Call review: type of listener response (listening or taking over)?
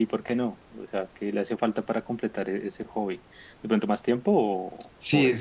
taking over